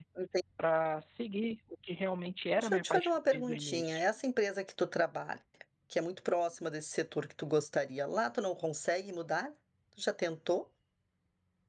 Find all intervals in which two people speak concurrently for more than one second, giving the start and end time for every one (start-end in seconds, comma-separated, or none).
2.6-4.1